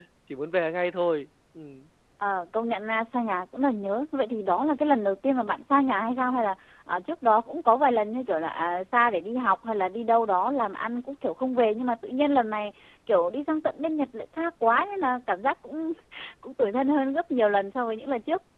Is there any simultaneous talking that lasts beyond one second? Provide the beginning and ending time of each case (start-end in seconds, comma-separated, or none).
none